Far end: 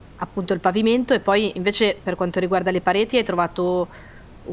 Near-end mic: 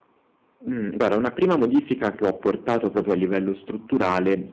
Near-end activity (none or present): present